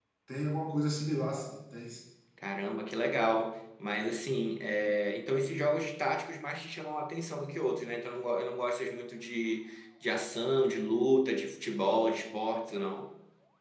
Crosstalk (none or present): none